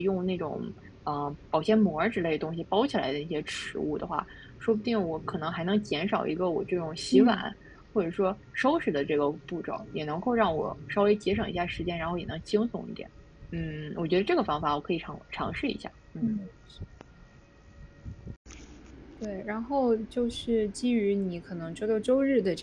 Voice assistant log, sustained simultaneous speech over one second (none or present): none